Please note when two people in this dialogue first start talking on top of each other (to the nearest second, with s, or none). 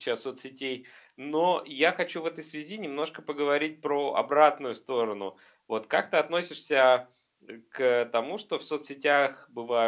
none